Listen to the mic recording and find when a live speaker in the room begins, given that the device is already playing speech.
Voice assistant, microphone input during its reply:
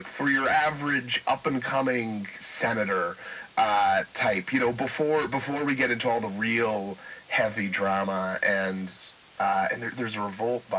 none

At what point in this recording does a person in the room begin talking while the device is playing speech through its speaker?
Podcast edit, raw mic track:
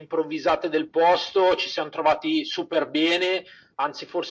none

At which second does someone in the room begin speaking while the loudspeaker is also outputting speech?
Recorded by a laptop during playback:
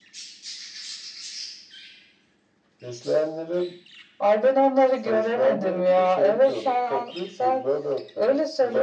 none

